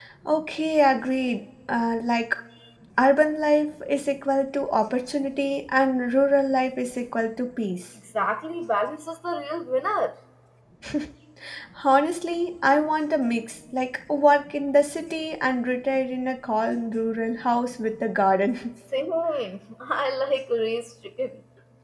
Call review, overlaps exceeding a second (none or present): none